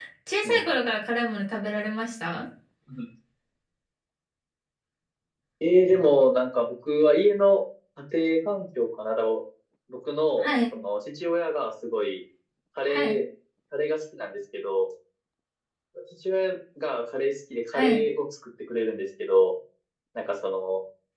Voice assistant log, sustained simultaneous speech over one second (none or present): none